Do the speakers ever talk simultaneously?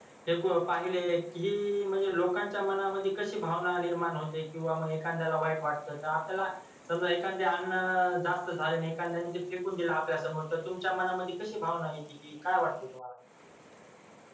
No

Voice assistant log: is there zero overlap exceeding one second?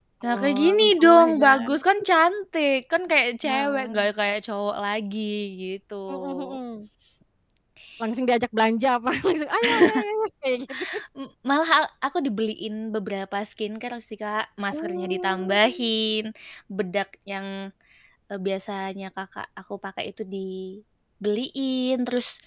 No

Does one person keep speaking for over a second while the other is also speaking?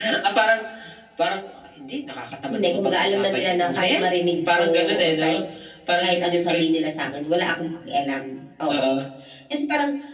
Yes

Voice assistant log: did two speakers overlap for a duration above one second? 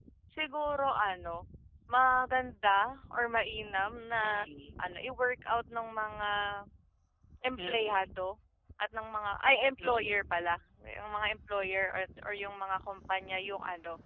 No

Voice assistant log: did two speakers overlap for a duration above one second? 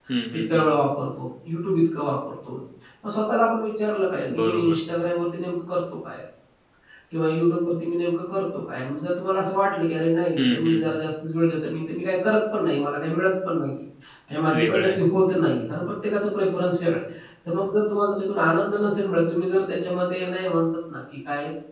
No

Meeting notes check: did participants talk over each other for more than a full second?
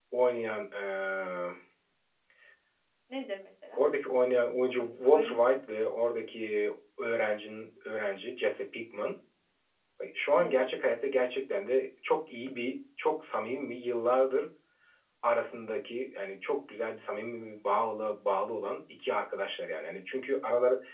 No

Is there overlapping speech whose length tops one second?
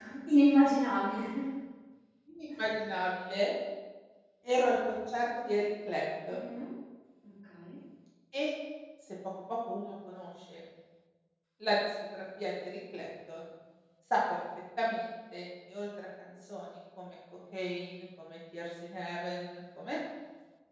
No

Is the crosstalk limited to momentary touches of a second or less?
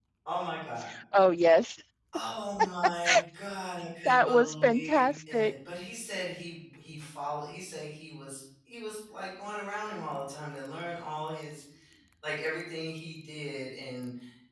No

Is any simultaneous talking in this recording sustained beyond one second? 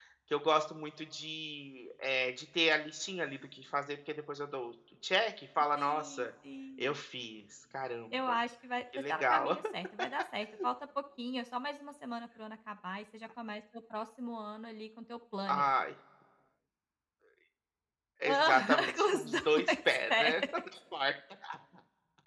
Yes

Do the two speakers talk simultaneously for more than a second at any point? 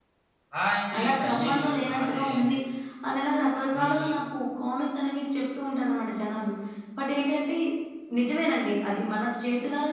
Yes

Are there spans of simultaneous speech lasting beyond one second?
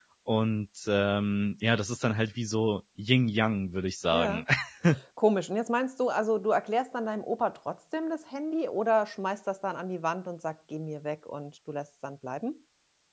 No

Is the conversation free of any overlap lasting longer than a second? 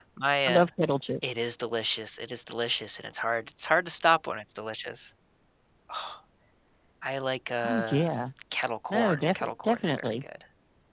No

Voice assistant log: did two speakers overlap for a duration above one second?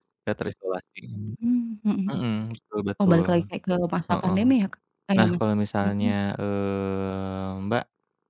No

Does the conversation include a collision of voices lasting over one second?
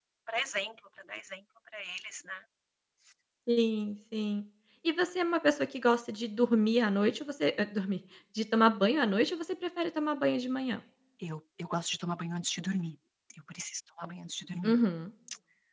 No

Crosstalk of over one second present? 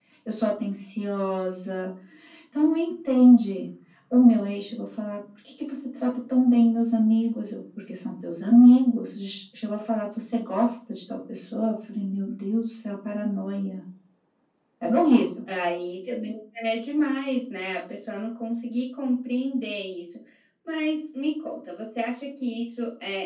No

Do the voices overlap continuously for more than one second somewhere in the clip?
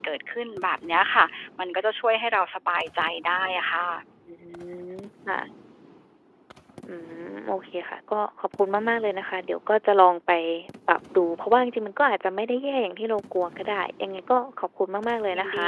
No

